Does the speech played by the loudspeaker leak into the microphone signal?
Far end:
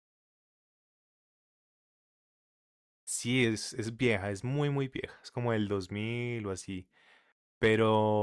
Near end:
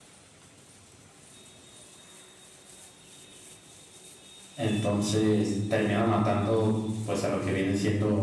No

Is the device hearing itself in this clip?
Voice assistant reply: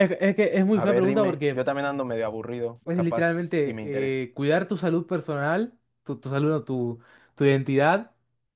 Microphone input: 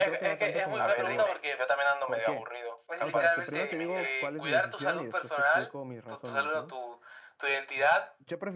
Yes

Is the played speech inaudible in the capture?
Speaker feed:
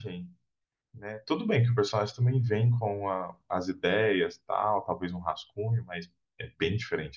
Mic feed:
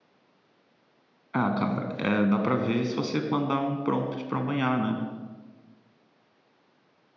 Yes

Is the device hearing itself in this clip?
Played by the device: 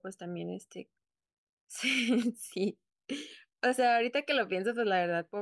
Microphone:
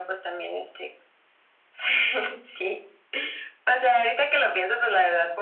Yes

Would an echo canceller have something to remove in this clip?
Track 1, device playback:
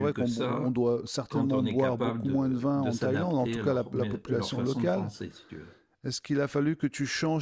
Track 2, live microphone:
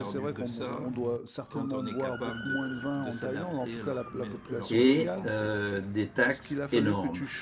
Yes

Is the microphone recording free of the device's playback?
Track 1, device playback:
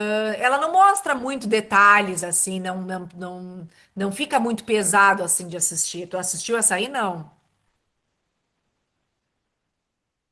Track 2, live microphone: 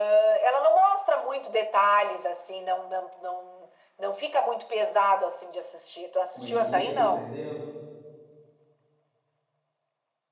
No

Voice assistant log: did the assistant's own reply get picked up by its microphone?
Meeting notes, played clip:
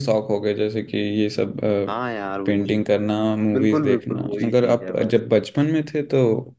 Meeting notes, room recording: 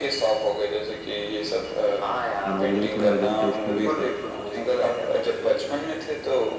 Yes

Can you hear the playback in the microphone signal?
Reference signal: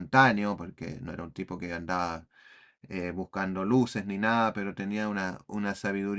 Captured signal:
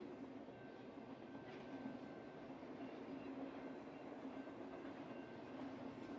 No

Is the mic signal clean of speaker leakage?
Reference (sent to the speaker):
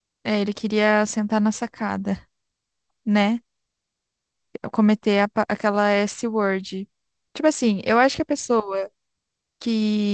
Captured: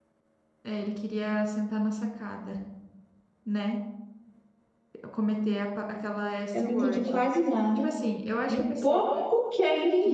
No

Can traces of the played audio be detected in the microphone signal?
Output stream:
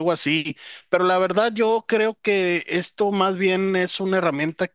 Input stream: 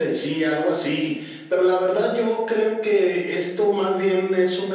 Yes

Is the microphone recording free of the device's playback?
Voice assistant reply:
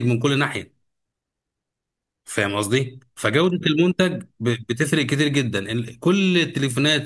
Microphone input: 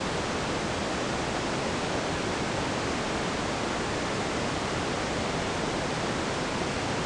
Yes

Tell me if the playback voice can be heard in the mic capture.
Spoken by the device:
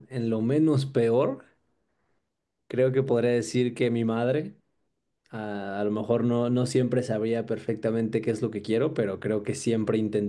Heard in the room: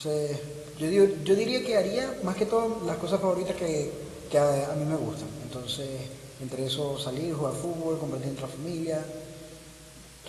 No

